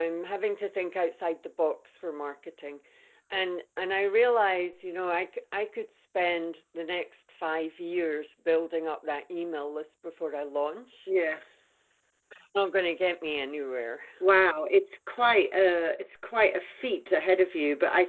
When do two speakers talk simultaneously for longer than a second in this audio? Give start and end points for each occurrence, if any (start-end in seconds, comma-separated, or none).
none